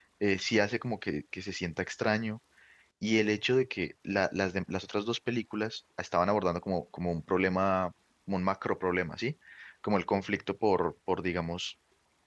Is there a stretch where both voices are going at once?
No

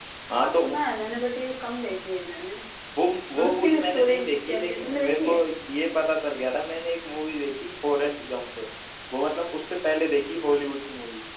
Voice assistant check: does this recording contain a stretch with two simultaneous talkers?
Yes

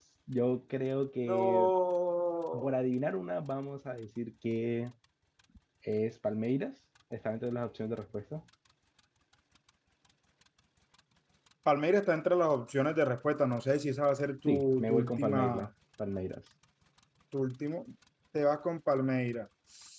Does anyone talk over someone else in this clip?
Yes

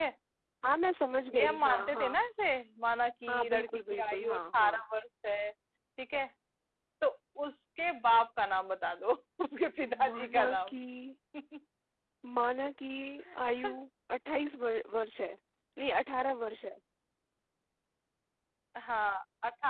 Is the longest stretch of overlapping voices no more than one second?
No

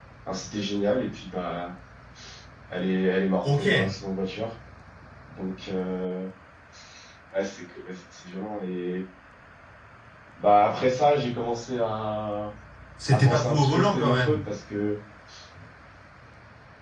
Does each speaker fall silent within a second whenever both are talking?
No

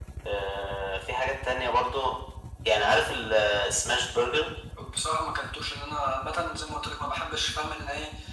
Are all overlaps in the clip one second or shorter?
Yes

